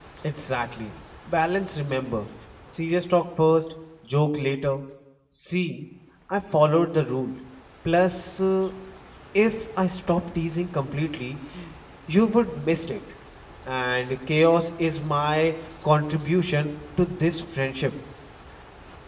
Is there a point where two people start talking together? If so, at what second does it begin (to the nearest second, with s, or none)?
none